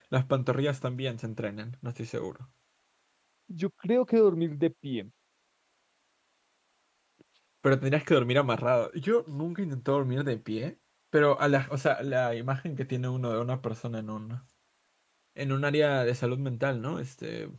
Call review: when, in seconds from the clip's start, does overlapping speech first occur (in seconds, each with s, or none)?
none